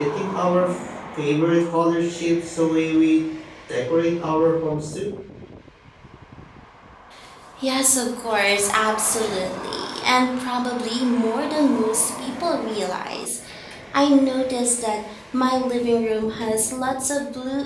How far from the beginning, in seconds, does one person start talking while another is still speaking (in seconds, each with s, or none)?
none